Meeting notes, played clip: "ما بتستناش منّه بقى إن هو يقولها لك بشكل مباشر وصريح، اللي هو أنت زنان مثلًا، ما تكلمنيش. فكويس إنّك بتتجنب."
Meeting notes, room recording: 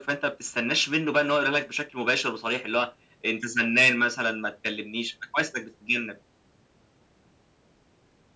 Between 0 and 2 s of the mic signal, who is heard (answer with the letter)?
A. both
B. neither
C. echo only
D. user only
C